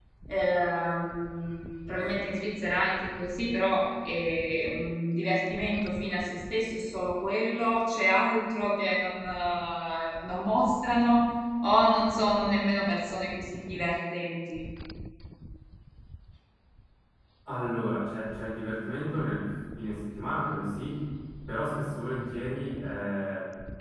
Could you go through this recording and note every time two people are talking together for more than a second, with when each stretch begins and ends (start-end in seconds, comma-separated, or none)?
none